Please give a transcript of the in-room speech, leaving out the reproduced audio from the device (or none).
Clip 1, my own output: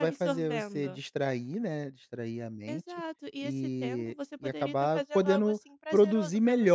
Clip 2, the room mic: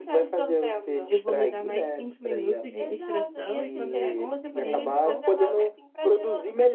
eu vou me dar mais 5 minutos de distração e quando der onze e meia em ponto eu começo".